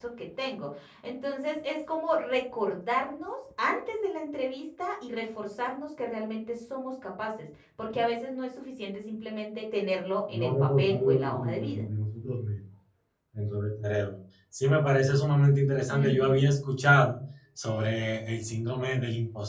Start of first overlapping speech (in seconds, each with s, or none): 10.3 s